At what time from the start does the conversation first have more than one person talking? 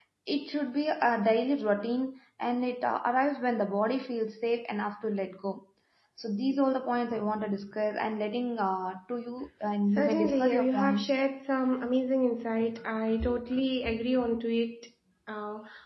10.0 s

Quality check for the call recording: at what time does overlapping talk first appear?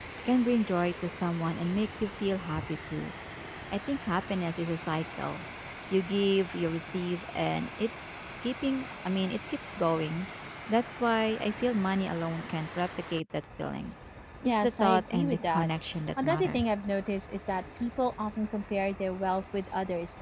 14.4 s

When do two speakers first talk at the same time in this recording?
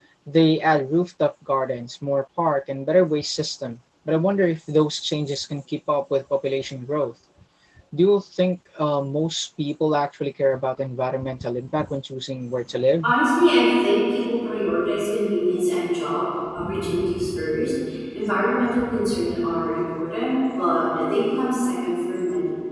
none

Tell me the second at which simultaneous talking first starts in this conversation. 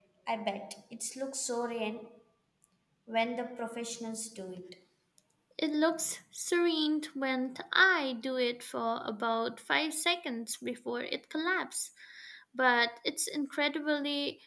none

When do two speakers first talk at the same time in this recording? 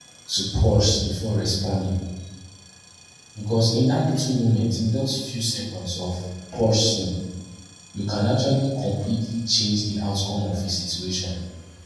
none

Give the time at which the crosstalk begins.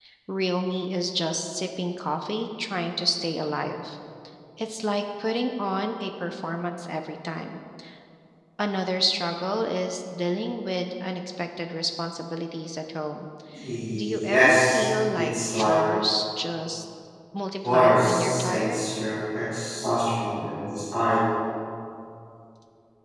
14.0 s

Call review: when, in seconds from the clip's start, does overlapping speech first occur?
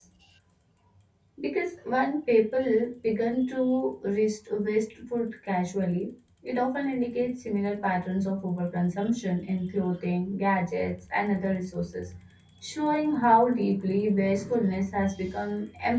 none

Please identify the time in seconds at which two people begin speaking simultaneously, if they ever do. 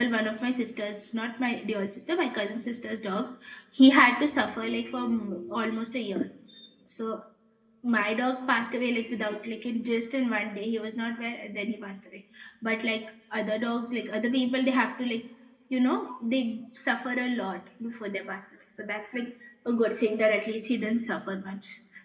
none

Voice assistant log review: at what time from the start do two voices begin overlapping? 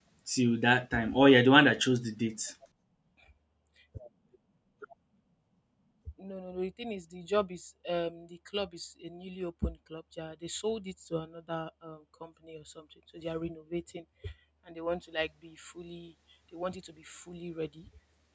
none

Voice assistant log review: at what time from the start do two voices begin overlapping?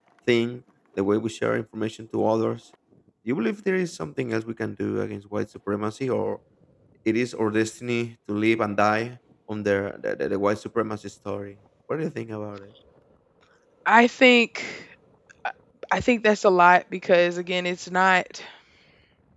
none

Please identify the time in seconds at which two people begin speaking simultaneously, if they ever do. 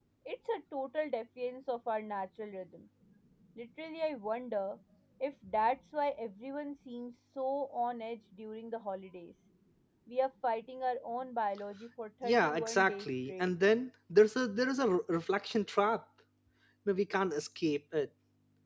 12.2 s

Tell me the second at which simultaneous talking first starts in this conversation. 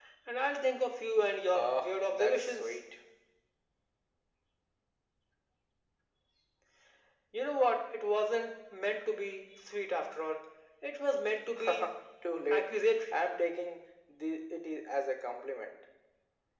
1.5 s

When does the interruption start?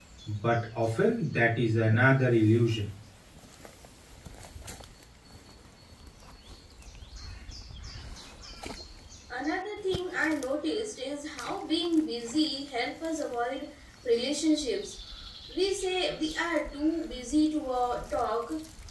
none

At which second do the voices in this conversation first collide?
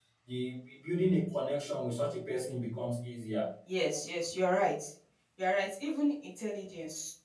none

